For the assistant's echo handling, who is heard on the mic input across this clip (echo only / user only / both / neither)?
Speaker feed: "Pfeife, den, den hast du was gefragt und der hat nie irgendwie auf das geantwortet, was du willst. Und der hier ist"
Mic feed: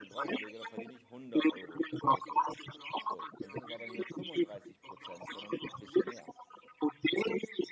both